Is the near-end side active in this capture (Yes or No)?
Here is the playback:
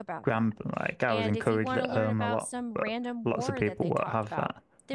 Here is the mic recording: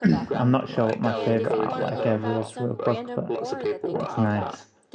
Yes